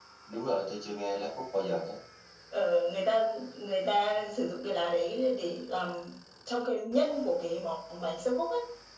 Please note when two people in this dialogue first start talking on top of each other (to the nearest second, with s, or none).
none